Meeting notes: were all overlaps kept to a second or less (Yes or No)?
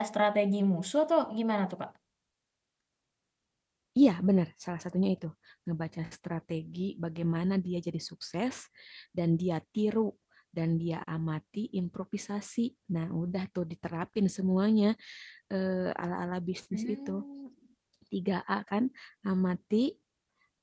Yes